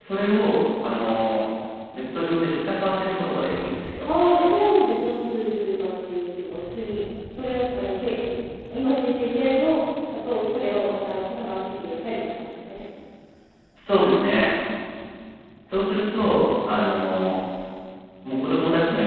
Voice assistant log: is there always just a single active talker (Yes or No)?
Yes